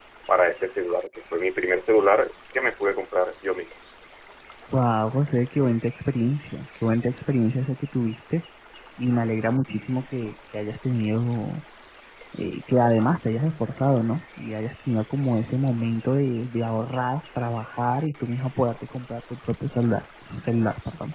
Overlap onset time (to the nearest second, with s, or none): none